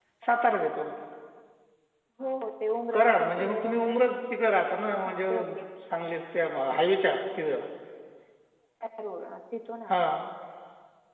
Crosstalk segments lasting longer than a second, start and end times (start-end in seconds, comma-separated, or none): 2.9-4.2